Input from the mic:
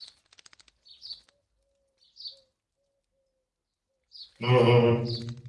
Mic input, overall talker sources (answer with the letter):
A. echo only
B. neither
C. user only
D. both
C